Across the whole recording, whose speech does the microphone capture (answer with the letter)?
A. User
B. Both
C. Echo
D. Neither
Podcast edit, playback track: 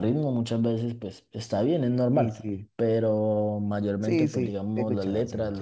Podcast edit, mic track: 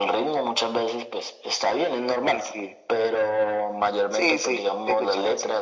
C